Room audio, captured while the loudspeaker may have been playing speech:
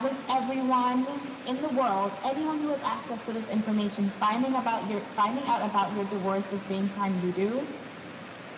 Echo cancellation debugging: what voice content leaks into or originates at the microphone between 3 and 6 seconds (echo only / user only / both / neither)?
echo only